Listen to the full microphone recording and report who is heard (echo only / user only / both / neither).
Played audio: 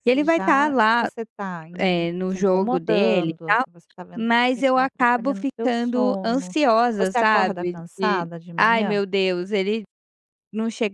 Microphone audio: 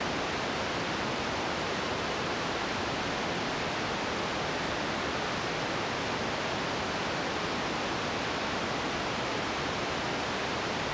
neither